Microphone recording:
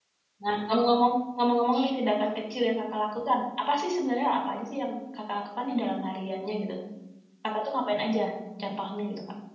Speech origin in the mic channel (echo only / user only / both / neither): user only